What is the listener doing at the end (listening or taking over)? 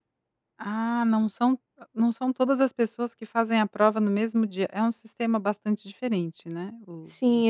taking over